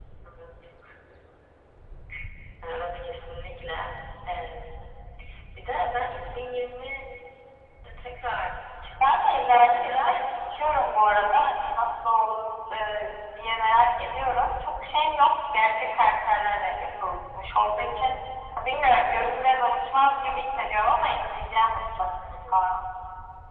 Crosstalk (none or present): present